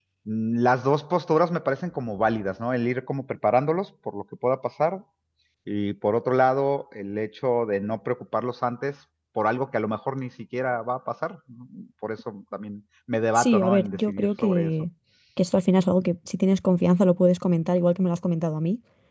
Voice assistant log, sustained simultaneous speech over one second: present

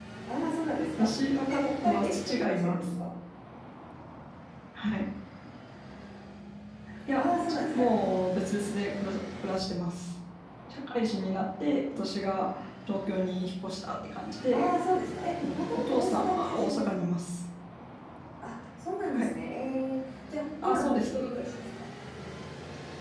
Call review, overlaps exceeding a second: present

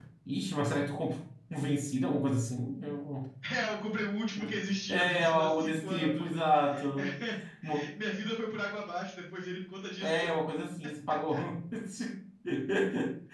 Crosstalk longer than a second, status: present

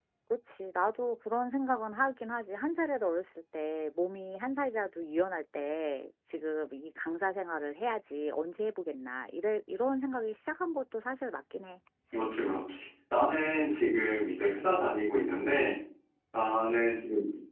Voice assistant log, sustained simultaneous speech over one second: none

